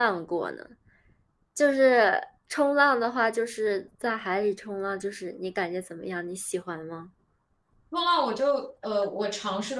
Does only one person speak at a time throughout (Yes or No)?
Yes